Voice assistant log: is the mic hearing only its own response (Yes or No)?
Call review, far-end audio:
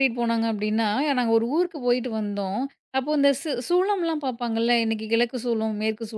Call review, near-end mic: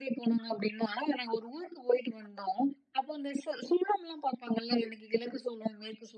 Yes